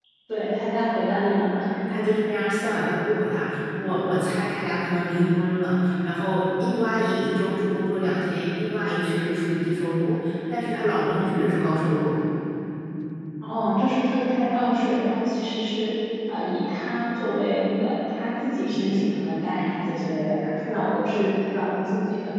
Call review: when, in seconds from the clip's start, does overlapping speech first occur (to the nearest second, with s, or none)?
none